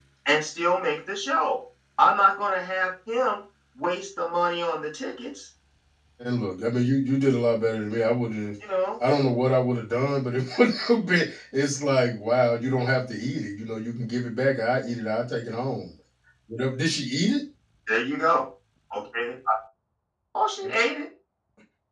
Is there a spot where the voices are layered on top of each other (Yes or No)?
No